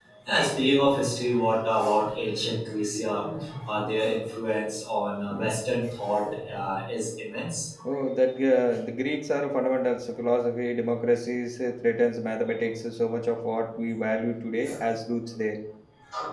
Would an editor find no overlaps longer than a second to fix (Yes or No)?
Yes